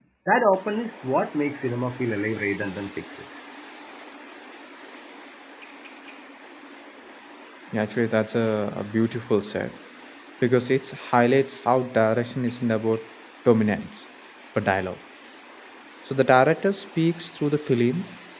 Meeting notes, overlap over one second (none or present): none